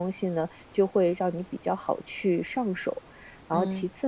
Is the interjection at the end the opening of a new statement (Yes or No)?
No